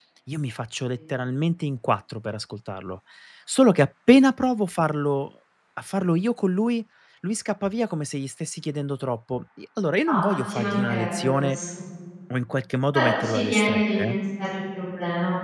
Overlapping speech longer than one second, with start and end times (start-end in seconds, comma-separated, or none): 10.1-11.6, 12.9-14.2